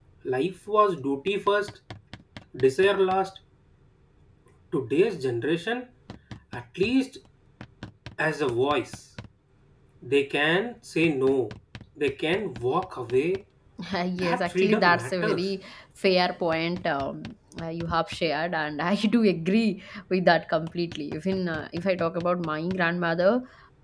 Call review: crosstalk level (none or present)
present